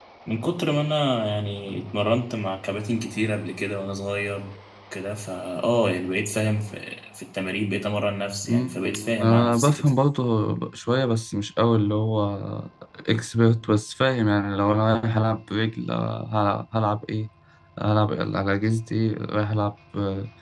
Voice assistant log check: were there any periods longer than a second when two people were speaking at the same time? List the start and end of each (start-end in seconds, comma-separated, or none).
8.4-9.9